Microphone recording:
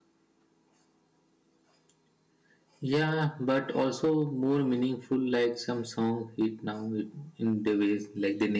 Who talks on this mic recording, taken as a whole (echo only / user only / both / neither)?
user only